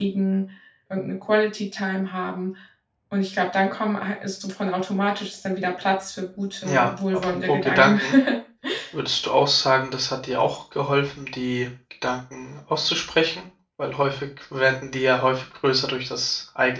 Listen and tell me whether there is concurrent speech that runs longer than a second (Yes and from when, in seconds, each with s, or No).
Yes, from 6.6 s